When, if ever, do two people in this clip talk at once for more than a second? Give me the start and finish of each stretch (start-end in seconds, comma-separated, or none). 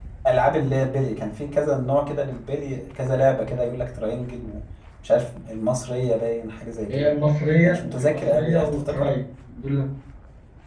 7.6-9.1